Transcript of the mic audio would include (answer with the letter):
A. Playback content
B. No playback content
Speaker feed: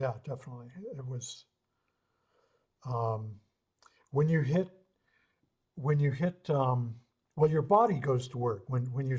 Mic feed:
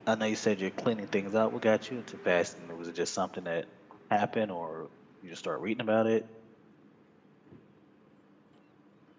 B